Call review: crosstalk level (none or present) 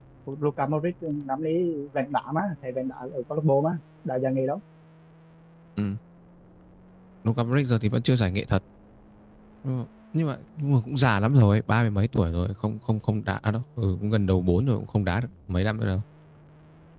none